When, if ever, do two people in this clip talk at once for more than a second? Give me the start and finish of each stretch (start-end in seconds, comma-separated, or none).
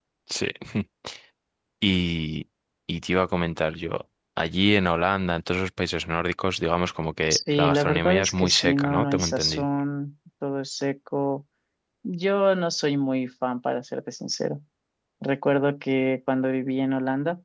7.3-9.7